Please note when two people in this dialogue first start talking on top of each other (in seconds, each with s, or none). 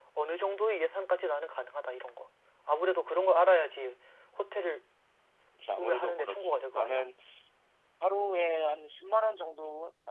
5.8 s